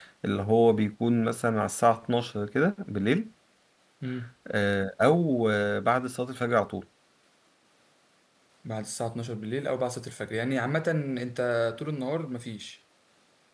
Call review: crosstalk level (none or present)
none